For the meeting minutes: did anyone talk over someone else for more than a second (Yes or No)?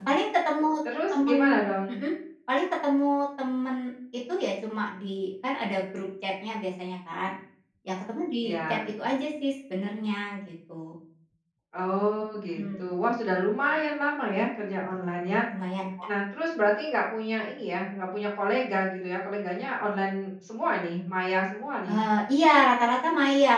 No